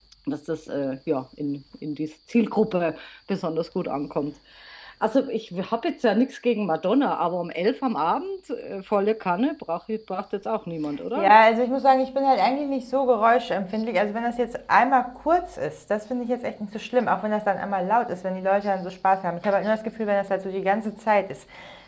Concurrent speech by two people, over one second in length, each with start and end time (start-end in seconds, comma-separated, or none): none